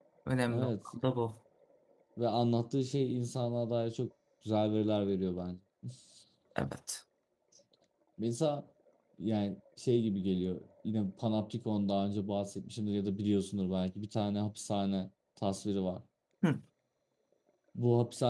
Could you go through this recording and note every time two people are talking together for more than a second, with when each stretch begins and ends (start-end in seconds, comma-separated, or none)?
none